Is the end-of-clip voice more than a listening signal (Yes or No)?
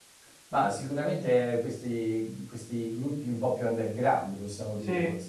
No